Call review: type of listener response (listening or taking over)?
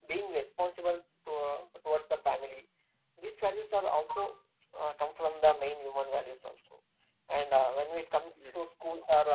listening